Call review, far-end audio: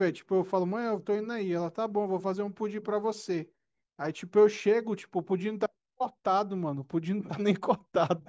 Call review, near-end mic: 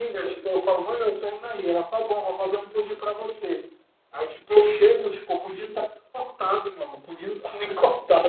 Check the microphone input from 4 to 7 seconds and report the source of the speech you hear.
echo only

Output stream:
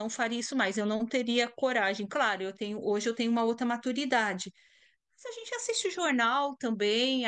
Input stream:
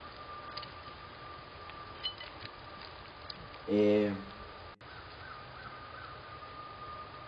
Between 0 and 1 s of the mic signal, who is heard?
neither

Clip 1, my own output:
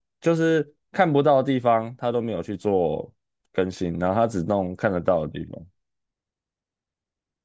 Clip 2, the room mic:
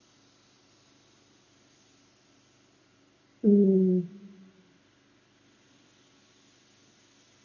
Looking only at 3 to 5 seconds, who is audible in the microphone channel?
user only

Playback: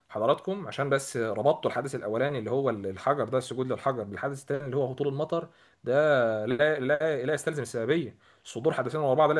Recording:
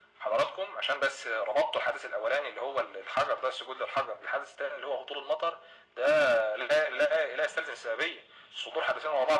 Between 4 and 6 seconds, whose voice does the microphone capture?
echo only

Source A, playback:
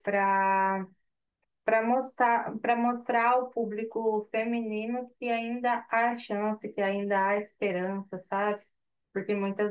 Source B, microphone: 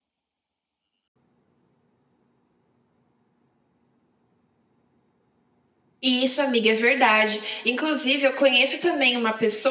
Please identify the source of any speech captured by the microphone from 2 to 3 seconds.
neither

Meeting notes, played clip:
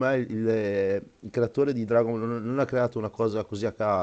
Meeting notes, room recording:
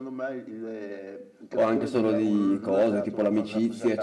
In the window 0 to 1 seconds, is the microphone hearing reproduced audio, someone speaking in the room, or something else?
echo only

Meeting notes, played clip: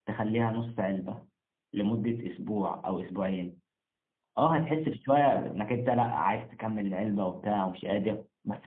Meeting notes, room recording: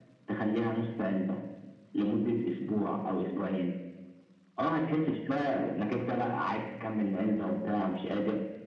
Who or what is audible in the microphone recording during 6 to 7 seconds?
echo only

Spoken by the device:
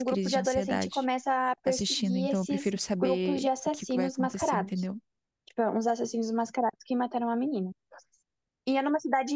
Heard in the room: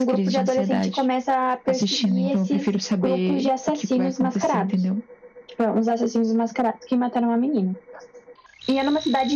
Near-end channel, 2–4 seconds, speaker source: echo only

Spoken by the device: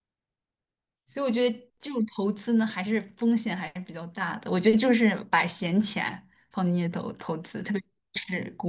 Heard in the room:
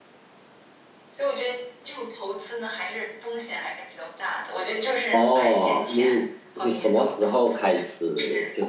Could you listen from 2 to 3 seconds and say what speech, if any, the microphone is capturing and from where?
echo only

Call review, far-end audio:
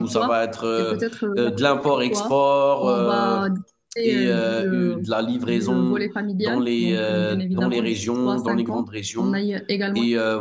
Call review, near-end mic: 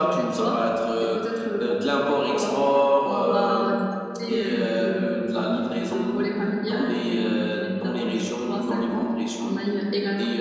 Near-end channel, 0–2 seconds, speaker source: echo only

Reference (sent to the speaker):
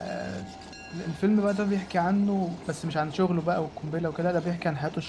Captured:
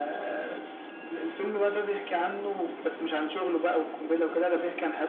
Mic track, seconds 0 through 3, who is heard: echo only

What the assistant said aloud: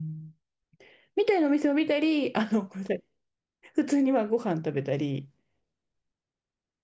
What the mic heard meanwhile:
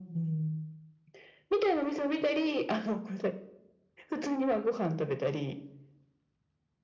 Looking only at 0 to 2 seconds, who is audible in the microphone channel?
echo only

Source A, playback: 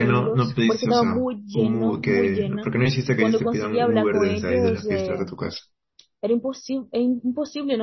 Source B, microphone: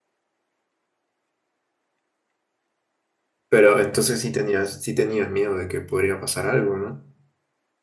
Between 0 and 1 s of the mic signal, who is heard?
neither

